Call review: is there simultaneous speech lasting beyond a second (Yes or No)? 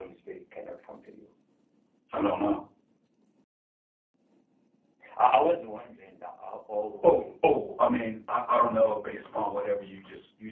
No